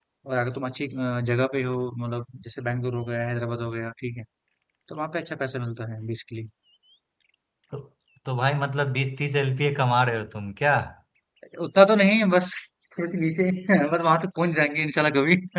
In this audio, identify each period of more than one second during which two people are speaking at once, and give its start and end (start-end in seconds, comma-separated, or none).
none